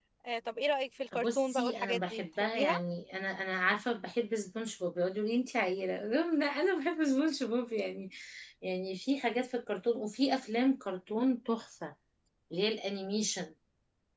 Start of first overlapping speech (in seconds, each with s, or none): 1.1 s